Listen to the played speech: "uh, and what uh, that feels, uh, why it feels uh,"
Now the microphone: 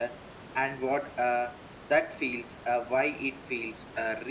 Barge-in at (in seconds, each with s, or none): none